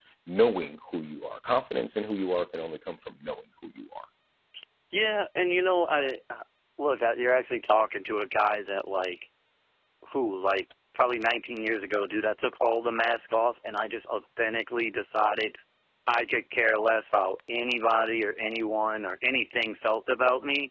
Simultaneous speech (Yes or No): No